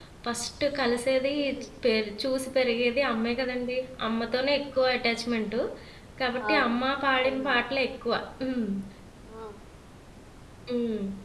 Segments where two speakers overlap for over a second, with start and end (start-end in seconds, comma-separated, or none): none